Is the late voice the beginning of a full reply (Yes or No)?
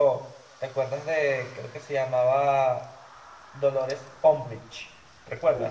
Yes